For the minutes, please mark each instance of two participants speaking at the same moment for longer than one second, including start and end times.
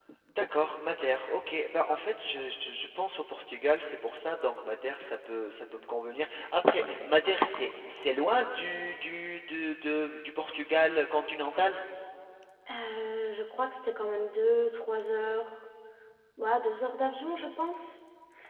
none

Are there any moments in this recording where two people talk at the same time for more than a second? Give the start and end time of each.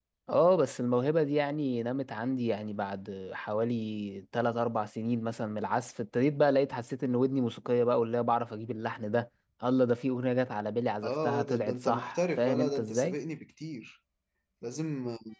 11.0-13.2

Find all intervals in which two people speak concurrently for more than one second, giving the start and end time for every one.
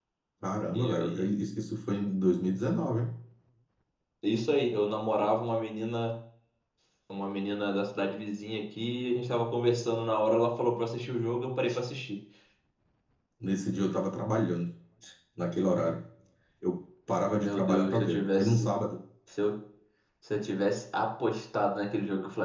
17.4-18.7

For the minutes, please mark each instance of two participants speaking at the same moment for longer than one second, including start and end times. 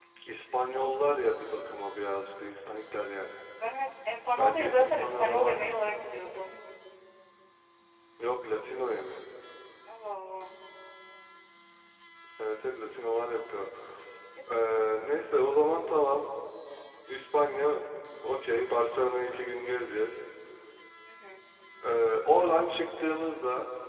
4.4-5.7

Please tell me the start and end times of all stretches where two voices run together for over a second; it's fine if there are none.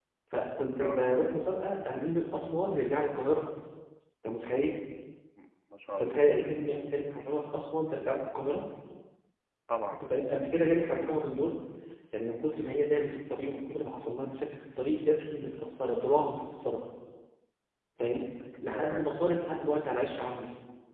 none

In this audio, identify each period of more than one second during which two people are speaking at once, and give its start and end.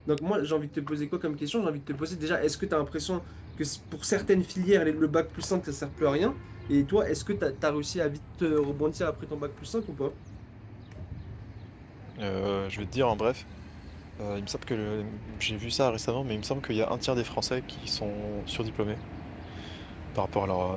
none

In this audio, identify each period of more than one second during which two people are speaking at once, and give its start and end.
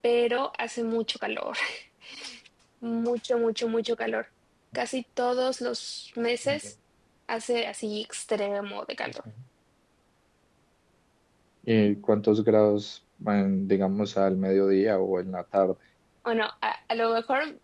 none

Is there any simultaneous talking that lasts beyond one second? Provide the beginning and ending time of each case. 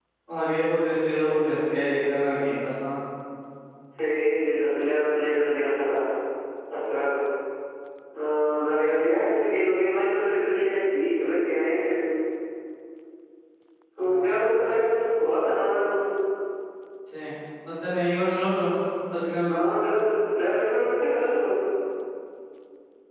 none

